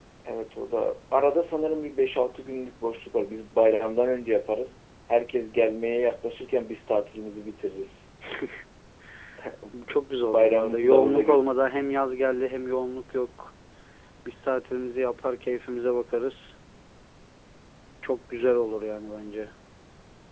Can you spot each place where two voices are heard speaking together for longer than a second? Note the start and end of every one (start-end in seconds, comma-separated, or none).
10.2-11.4